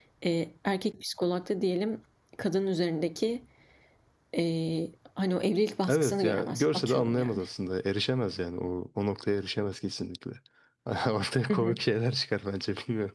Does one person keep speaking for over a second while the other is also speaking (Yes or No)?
Yes